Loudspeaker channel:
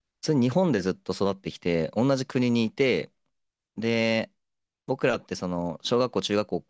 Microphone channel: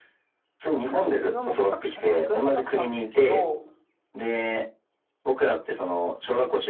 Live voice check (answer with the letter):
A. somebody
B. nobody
A